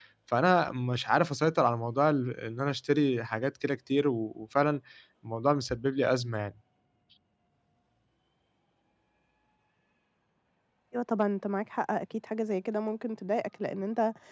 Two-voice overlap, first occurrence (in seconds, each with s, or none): none